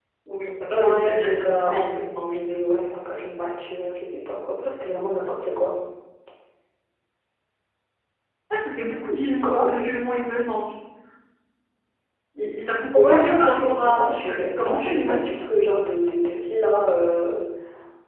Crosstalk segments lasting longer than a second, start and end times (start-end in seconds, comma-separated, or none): 0.7-2.4, 12.9-15.3